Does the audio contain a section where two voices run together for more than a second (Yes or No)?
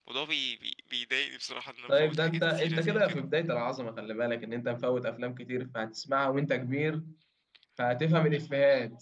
Yes